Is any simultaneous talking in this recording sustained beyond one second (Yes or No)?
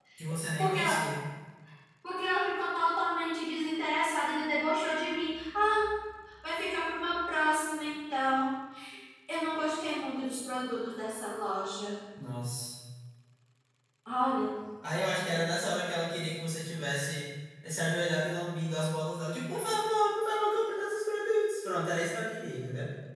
No